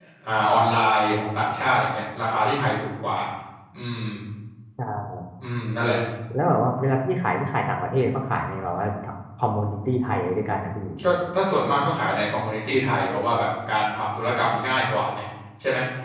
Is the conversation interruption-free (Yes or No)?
Yes